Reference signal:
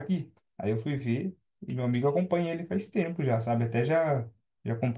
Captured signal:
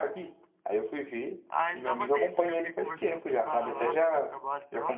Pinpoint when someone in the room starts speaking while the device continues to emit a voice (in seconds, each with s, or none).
1.5 s